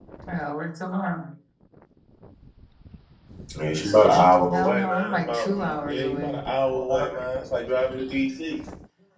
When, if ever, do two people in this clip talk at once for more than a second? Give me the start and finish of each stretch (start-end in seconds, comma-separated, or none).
4.5-6.4